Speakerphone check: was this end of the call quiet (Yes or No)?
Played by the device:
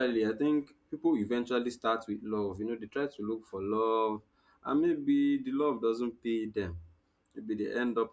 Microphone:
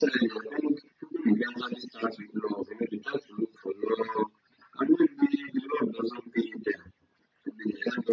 Yes